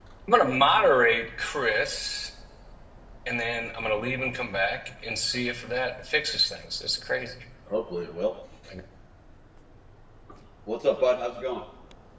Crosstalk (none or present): none